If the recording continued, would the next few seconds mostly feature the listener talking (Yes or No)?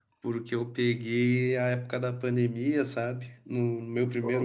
No